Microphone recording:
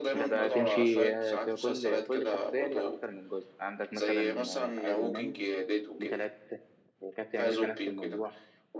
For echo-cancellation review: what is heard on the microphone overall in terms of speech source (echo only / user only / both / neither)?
both